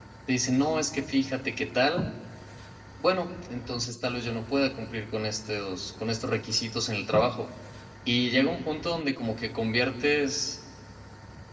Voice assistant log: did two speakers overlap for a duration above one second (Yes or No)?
No